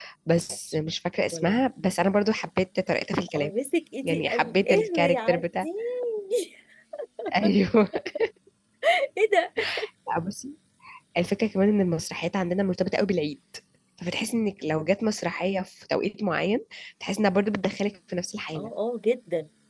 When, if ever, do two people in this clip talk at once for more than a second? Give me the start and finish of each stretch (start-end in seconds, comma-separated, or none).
4.0-5.7